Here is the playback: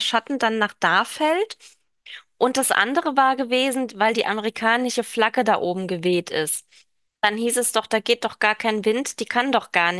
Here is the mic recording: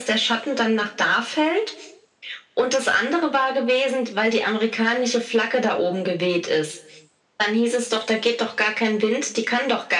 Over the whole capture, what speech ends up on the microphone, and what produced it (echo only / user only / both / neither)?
echo only